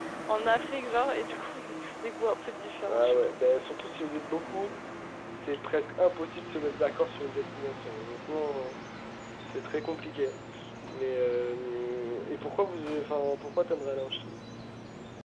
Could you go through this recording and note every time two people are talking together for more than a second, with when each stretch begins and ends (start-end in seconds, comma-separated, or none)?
none